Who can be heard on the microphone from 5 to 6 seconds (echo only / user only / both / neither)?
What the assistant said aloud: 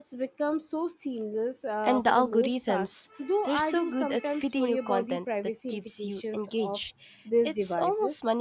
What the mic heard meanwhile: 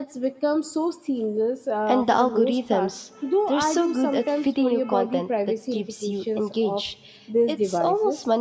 echo only